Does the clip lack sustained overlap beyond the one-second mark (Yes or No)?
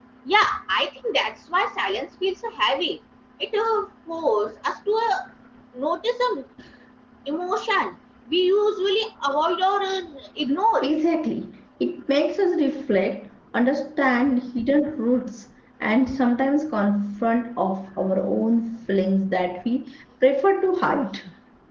Yes